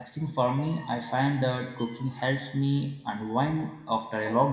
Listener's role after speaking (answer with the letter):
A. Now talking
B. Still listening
A